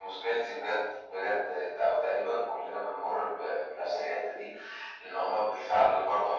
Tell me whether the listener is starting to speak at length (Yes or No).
No